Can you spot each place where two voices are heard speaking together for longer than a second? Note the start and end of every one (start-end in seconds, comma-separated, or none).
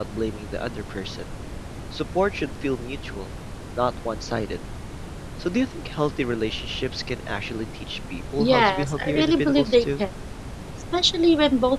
8.4-10.0